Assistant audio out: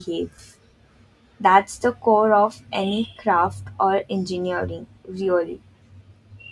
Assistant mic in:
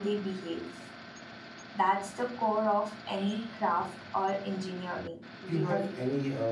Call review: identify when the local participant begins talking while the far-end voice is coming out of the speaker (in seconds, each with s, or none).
5.5 s